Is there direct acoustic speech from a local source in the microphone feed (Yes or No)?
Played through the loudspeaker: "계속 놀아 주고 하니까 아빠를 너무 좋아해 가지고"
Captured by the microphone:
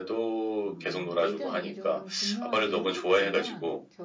Yes